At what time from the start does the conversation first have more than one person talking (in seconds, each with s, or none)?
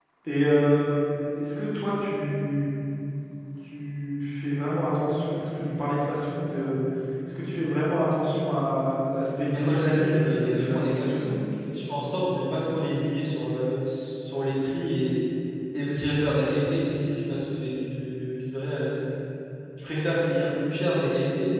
9.5 s